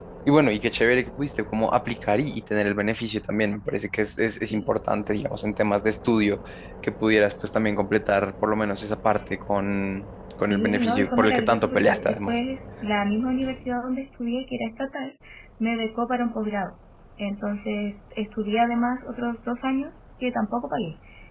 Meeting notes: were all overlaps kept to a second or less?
No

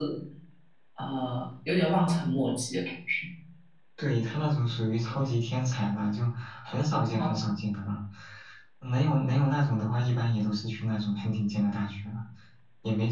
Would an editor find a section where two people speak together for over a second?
No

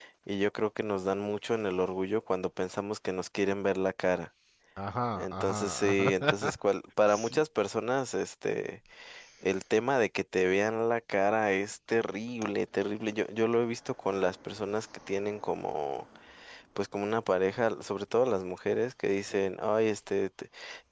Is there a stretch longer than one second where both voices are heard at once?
Yes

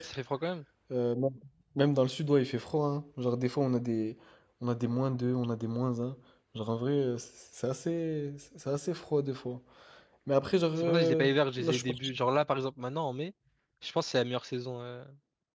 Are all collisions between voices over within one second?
No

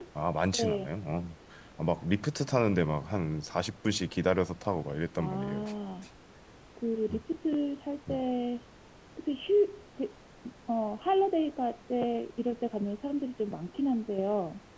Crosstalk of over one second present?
No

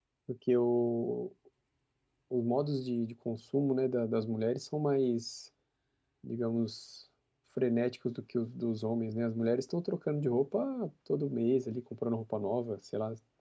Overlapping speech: No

